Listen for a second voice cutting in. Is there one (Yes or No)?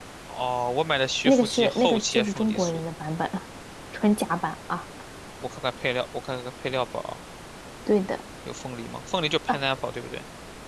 Yes